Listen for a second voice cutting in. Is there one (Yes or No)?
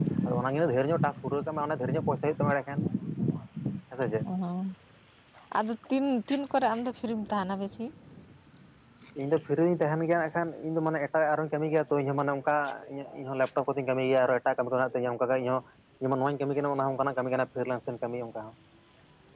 No